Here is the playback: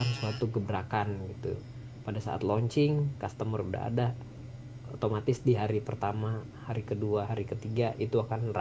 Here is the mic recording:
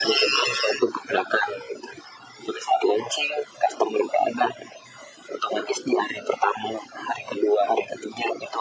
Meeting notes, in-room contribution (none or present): none